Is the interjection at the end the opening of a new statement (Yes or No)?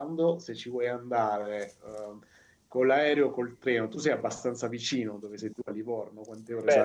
Yes